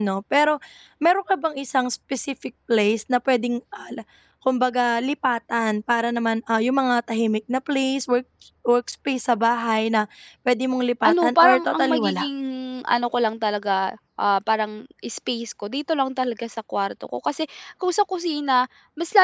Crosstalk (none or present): present